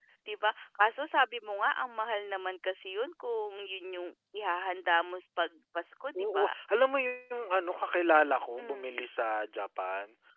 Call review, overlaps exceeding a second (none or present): none